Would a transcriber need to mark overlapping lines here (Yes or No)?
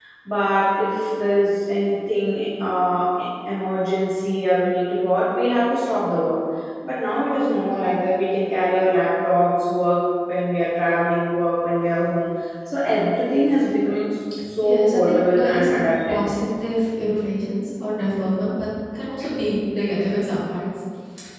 Yes